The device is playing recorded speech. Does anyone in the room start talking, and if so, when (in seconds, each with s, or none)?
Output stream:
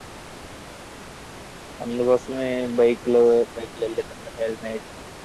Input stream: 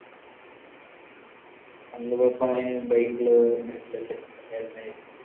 2.3 s